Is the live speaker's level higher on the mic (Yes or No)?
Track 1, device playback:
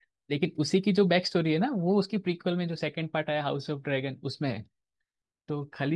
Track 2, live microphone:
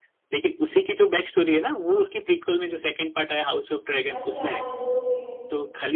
No